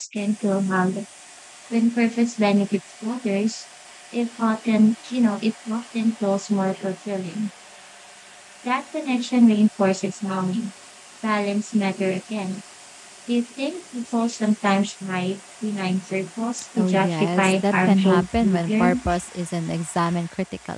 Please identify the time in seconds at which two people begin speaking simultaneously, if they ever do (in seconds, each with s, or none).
16.8 s